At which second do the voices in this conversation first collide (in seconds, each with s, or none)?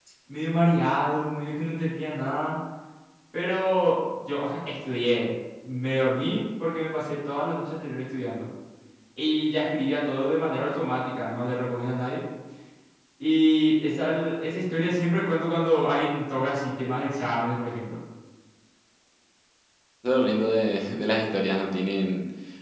none